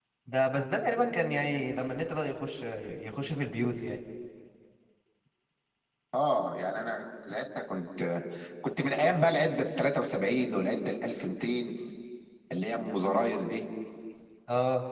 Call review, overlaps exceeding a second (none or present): none